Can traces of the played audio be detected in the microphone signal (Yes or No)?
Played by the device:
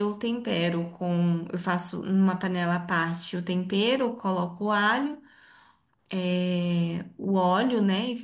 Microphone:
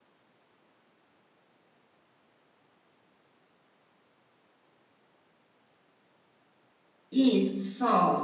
No